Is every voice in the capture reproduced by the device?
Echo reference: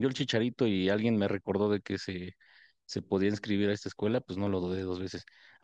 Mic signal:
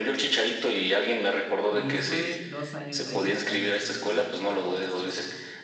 No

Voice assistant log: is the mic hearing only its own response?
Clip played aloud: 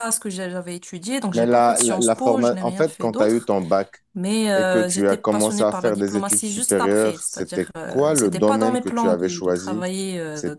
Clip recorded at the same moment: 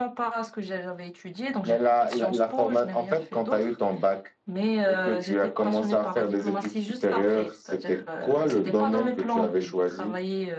Yes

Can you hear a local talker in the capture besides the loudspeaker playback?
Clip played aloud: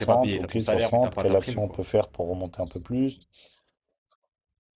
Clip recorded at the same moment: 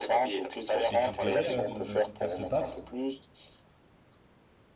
Yes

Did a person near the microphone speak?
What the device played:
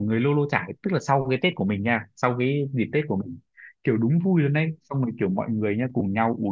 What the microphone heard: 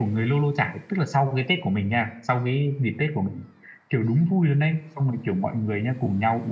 No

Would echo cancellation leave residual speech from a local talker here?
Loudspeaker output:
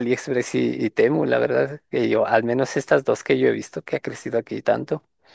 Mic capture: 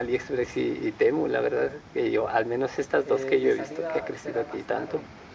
Yes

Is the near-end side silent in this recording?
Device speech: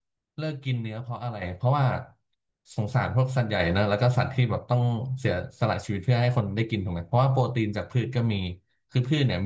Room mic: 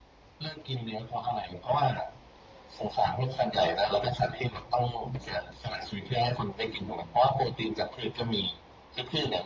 Yes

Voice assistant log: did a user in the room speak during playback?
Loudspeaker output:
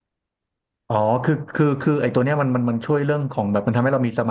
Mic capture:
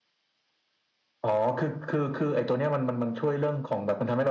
No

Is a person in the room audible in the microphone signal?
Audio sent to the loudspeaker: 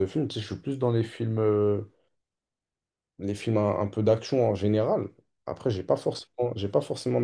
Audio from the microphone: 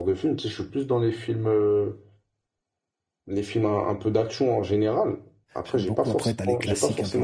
Yes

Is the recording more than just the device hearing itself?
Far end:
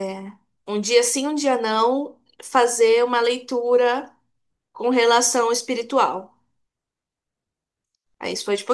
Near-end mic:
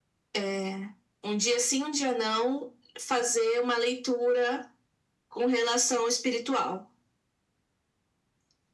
No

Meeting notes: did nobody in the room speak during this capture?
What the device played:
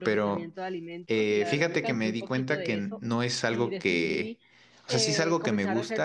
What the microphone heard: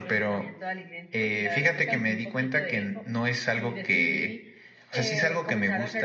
Yes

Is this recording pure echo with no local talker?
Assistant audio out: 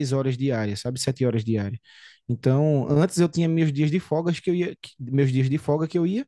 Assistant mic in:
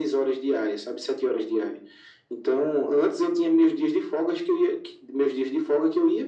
Yes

